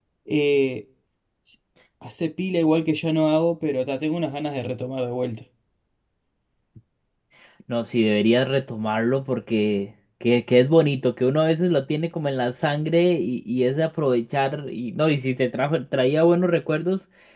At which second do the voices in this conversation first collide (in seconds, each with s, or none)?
none